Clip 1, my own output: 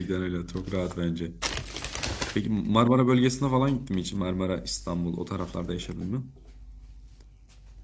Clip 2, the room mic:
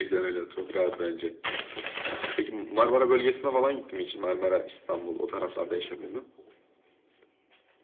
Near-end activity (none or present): none